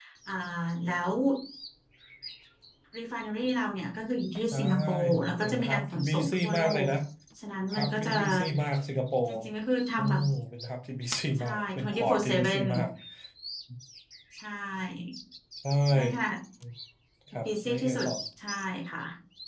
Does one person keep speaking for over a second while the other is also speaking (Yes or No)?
Yes